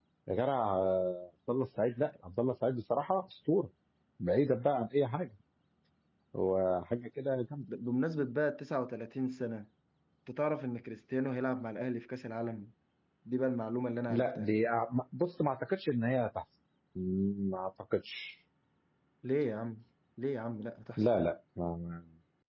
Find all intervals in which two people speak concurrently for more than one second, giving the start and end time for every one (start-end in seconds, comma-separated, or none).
none